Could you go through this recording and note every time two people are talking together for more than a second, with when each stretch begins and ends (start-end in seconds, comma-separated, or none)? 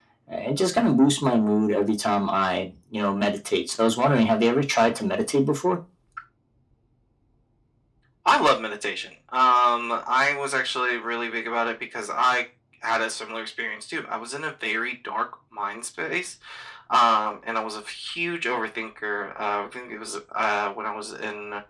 none